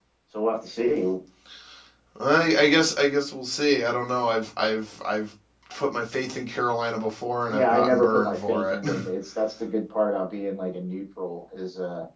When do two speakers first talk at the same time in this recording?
7.5 s

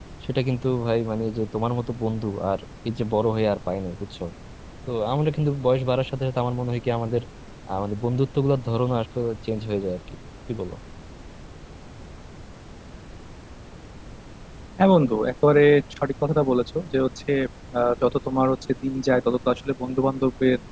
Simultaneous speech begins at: none

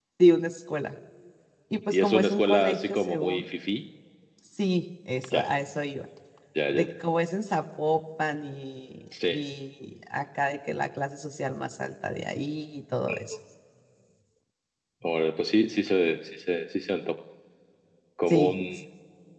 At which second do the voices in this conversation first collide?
1.9 s

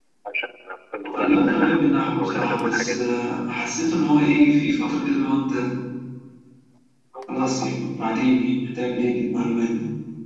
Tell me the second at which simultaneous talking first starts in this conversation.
1.2 s

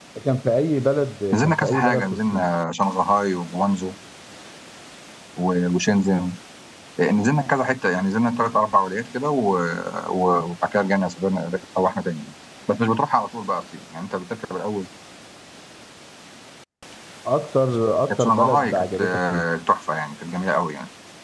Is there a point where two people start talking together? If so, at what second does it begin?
1.3 s

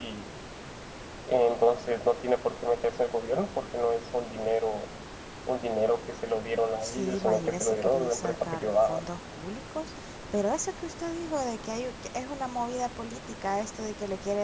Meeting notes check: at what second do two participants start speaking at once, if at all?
6.8 s

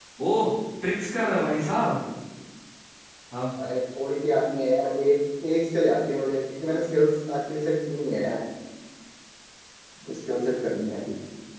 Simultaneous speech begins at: none

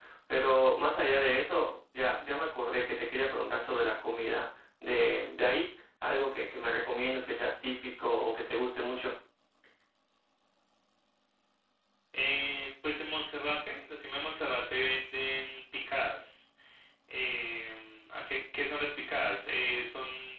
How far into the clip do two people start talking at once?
none

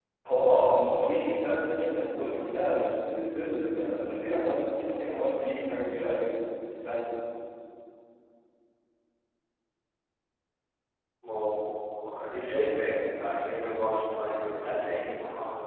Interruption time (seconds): none

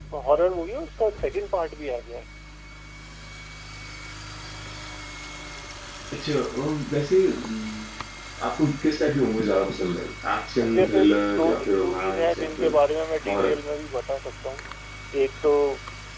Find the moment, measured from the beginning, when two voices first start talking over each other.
10.7 s

